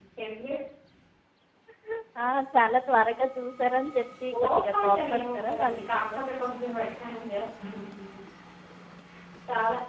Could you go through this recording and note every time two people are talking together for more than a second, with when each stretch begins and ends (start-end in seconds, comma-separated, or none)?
4.3-6.0